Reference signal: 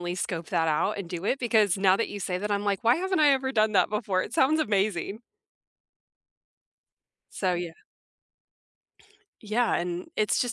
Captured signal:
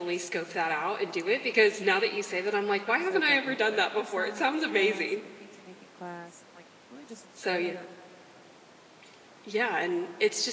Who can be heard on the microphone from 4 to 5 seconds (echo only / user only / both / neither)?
both